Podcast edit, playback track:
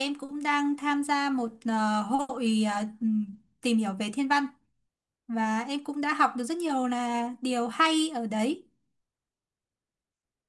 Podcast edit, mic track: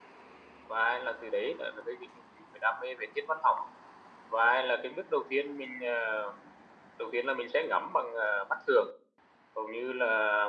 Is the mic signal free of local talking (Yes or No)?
No